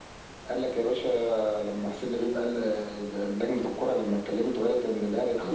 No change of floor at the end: No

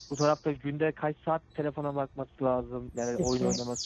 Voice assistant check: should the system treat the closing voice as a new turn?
No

